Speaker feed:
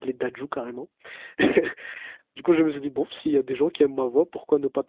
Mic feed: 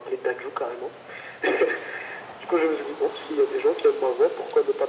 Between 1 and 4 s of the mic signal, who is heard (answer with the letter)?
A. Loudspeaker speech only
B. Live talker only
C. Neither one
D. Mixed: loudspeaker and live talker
A